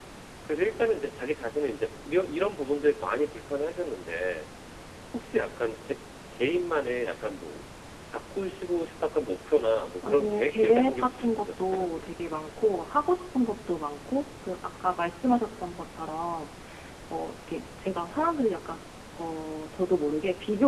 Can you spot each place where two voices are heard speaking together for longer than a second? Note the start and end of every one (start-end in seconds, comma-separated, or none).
10.0-11.9